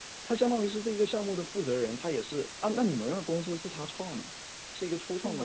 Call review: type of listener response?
taking over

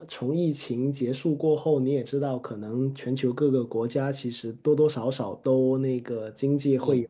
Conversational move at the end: listening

